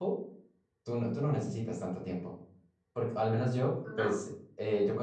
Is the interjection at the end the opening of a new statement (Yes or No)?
No